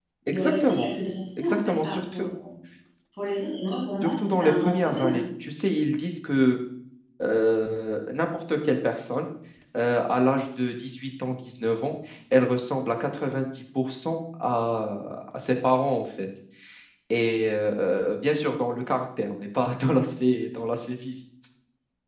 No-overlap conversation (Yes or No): No